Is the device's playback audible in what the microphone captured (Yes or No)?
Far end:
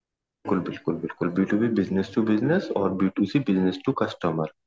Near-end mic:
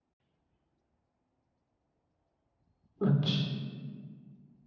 No